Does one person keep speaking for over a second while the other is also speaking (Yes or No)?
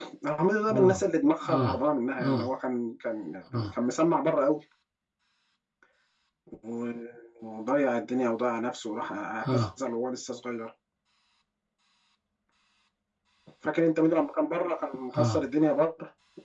No